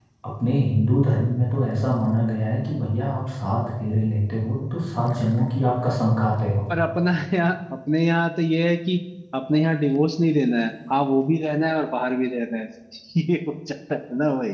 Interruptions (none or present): none